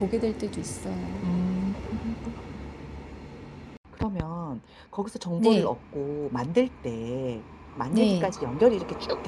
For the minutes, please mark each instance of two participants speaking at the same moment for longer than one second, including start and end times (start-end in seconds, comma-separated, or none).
none